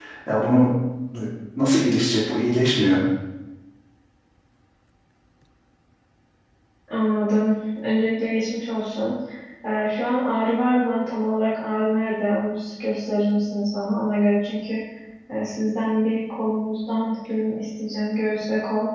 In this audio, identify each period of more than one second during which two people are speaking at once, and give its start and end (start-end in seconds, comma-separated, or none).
none